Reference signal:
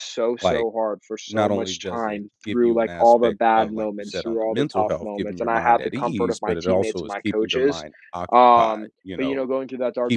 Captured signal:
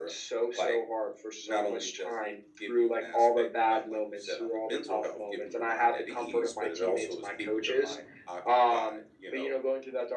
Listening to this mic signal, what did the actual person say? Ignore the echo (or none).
none